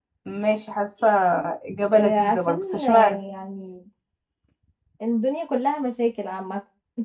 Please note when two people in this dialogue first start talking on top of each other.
1.9 s

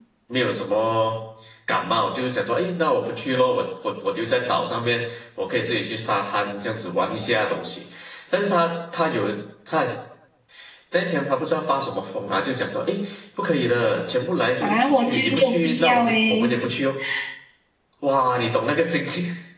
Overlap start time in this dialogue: 14.6 s

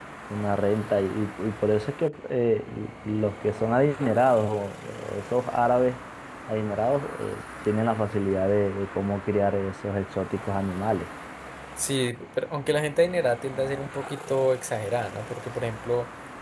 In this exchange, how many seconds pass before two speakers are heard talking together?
none

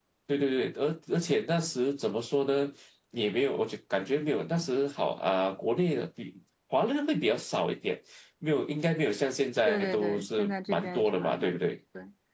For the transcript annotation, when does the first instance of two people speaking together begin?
9.7 s

